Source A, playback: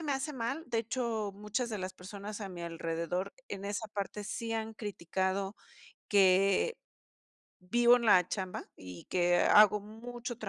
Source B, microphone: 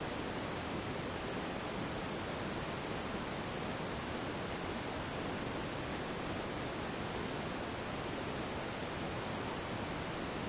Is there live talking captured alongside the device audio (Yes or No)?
No